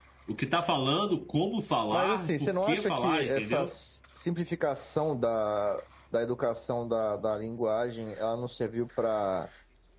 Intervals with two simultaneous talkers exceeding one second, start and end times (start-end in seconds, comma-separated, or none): 1.9-3.7